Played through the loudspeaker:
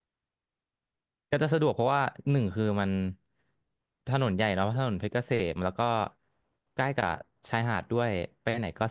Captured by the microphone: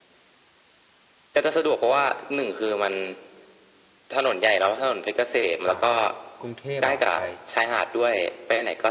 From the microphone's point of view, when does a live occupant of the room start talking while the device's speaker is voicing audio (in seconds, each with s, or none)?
5.7 s